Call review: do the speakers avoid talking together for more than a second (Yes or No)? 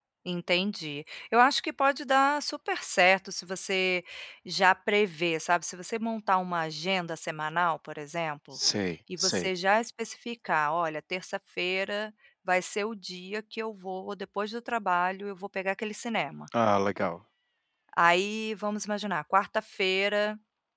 Yes